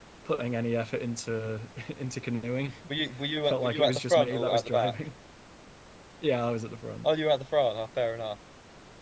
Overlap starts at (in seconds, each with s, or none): 3.5 s